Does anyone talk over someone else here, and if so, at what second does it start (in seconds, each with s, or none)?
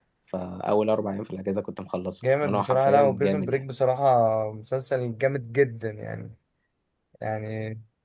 2.2 s